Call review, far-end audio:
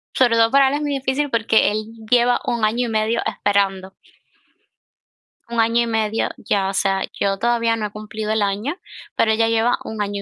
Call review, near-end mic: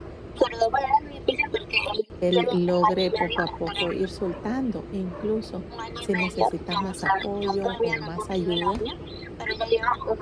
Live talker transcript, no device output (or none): él logre poco a poco ir soltando e incluso si necesitas más apoyo o más ayuda,